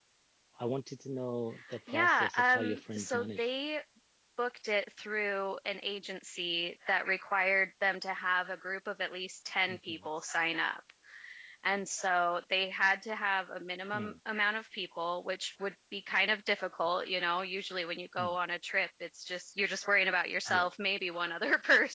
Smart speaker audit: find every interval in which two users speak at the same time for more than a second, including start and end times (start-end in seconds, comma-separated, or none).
1.9-3.5